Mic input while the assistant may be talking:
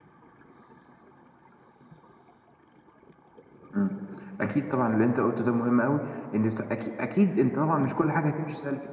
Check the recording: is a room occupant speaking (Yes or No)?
Yes